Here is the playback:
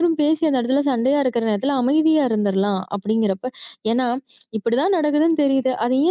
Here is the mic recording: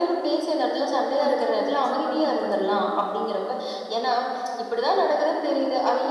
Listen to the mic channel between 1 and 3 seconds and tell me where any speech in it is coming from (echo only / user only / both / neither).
both